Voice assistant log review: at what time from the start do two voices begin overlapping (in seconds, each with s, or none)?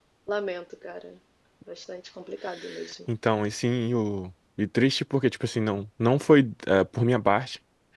none